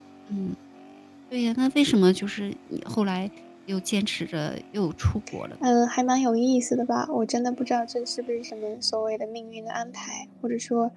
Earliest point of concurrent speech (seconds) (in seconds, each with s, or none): none